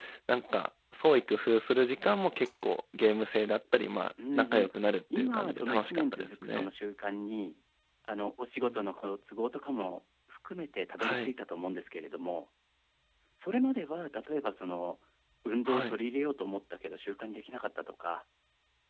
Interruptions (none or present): present